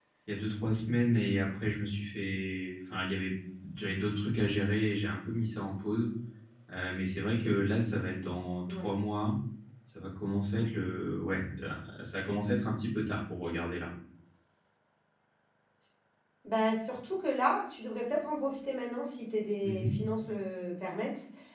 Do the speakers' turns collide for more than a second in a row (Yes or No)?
No